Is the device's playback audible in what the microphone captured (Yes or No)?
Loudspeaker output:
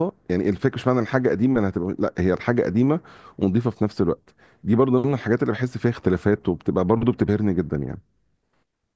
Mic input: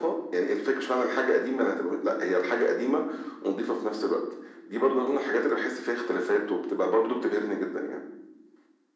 Yes